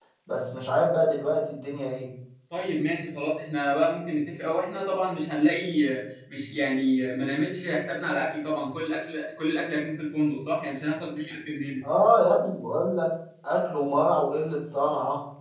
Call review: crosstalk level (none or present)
none